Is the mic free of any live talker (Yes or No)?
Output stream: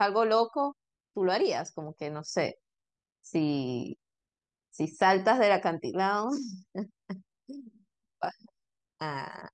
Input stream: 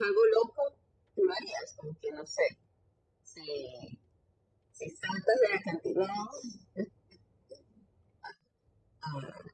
Yes